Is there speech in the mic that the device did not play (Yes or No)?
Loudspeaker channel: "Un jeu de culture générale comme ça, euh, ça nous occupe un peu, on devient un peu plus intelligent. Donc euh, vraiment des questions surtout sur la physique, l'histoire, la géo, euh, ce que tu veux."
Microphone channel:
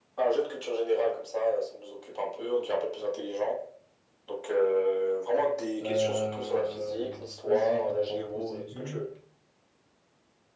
Yes